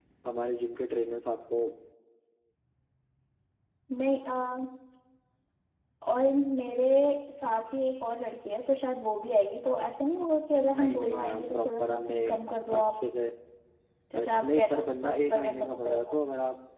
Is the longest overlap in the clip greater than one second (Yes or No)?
Yes